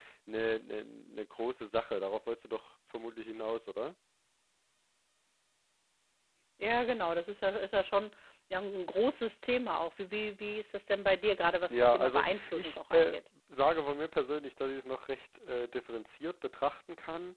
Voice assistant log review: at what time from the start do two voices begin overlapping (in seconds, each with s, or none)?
11.7 s